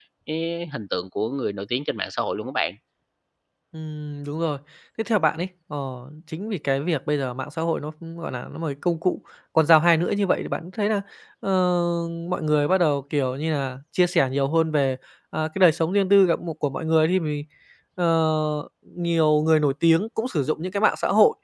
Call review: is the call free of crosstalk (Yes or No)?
Yes